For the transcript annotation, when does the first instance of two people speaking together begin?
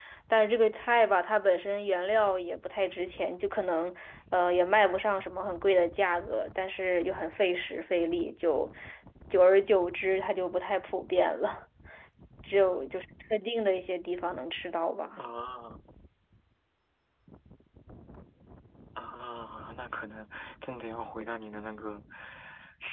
none

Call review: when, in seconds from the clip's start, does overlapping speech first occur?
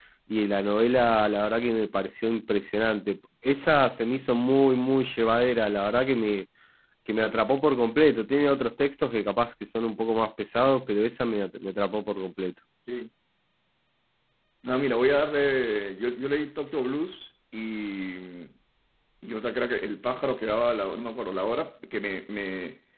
none

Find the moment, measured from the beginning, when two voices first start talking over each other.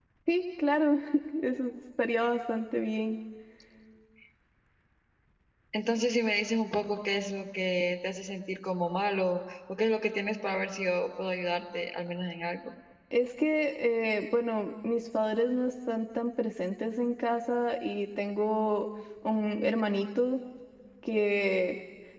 none

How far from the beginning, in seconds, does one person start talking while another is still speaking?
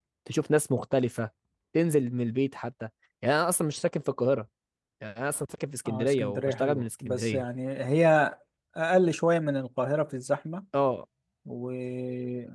6 s

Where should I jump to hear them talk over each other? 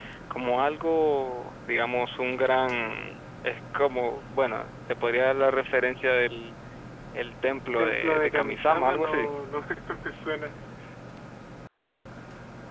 8 s

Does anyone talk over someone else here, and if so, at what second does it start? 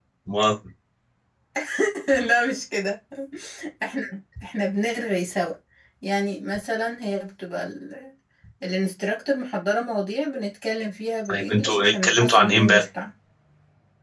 11 s

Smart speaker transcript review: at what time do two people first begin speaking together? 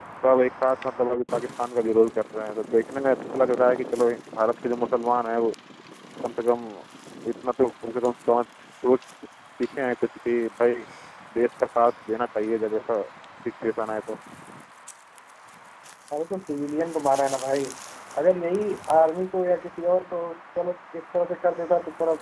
none

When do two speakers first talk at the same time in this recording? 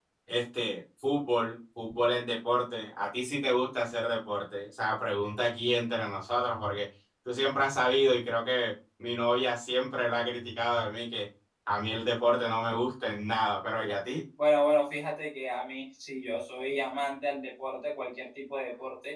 none

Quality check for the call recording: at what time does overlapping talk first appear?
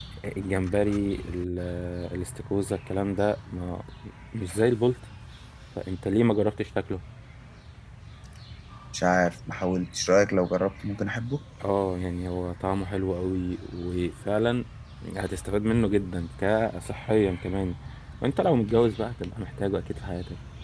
none

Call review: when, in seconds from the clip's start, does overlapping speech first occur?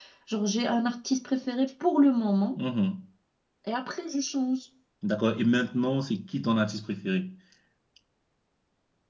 none

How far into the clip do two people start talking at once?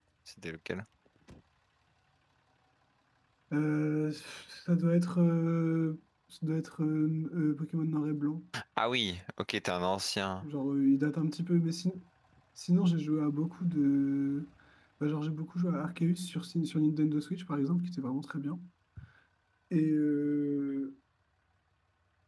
none

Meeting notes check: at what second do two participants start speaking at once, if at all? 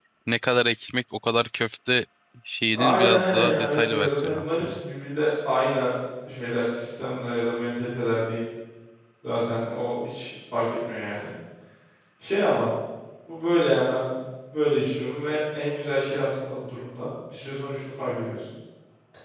3 s

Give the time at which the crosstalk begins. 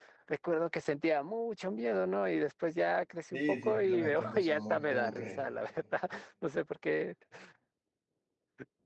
3 s

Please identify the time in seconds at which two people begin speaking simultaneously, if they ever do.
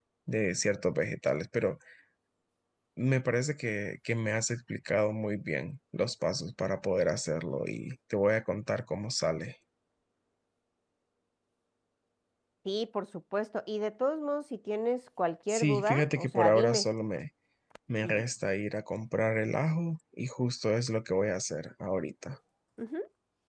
15 s

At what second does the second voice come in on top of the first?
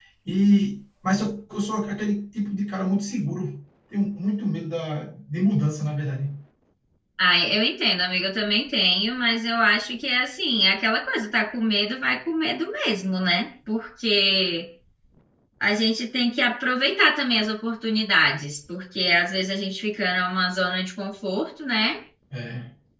none

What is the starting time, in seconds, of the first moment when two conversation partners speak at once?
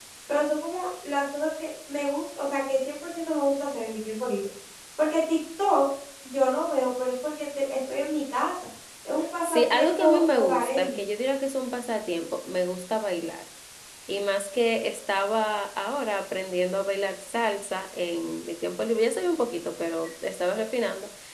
9 s

